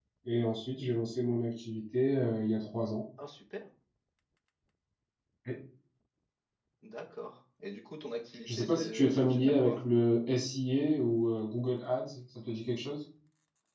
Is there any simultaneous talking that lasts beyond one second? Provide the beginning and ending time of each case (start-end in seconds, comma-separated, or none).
8.4-9.8